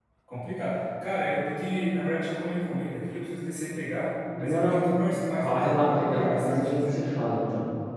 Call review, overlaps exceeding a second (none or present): present